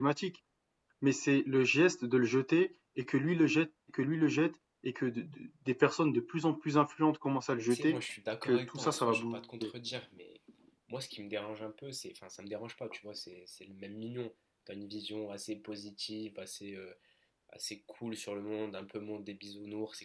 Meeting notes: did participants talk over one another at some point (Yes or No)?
Yes